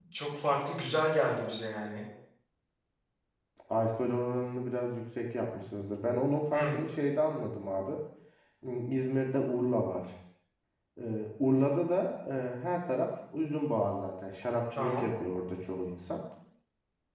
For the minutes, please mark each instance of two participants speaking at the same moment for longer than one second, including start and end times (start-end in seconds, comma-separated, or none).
none